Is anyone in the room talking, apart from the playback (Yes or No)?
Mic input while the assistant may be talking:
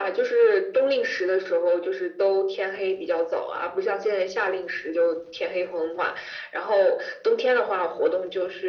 No